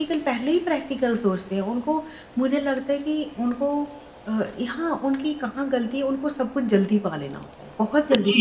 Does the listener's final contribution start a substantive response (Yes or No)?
Yes